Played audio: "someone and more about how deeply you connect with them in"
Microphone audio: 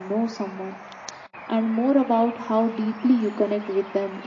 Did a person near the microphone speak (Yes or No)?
No